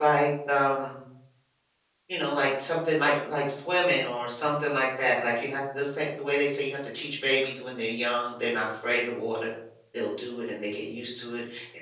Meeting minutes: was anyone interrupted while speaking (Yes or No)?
No